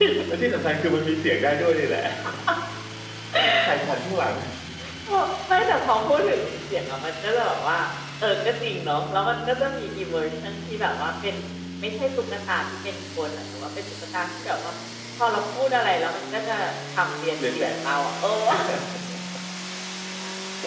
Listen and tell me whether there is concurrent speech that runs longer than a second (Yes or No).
No